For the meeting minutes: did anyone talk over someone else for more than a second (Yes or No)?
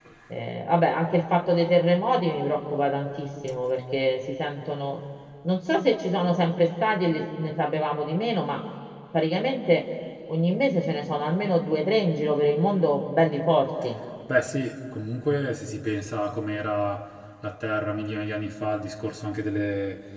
No